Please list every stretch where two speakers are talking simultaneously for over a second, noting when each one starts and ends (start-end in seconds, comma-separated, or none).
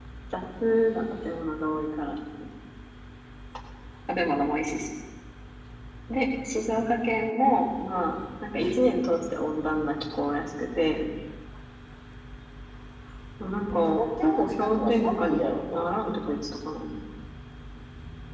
13.7-16.3